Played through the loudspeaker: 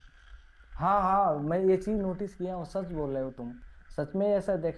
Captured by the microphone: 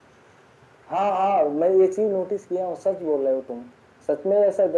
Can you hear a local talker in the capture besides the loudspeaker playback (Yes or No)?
No